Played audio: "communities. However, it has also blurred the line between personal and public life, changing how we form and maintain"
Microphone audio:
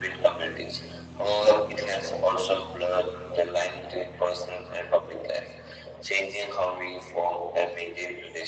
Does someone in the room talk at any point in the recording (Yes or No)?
No